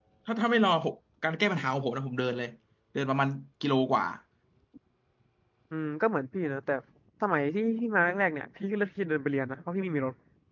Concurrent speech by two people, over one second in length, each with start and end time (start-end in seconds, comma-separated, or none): none